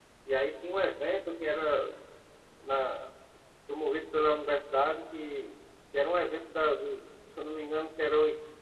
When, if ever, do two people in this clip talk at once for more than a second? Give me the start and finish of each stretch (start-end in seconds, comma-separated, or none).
none